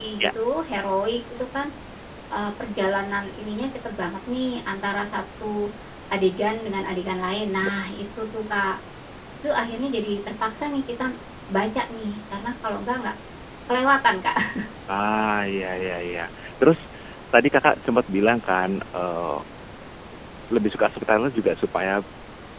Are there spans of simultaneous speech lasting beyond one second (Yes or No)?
No